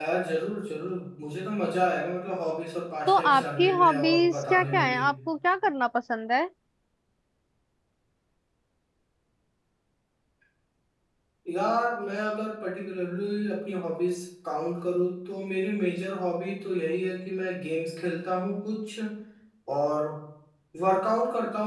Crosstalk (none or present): present